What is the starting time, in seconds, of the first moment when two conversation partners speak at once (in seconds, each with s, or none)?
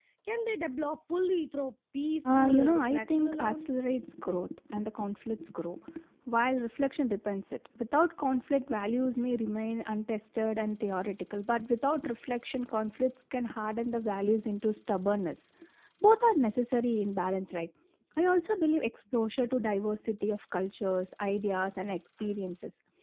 2.2 s